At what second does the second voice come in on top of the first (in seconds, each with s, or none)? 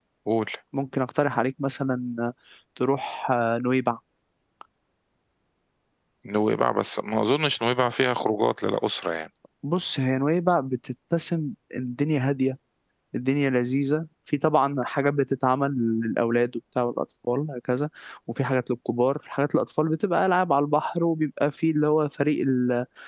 none